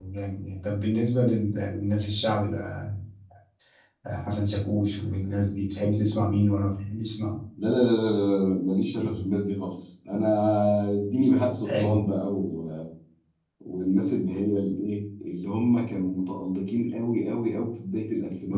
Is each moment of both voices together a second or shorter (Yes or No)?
Yes